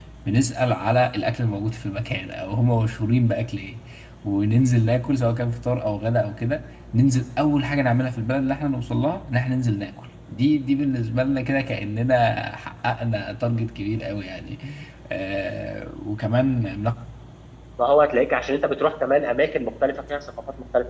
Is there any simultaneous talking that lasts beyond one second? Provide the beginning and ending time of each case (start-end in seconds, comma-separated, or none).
none